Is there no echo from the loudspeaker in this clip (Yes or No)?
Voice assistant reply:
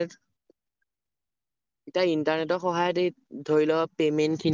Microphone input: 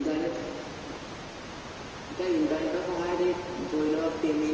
No